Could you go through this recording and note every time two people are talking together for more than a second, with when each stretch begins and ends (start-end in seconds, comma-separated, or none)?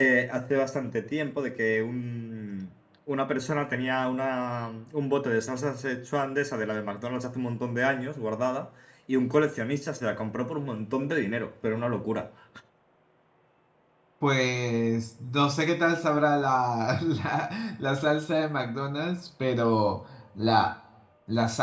none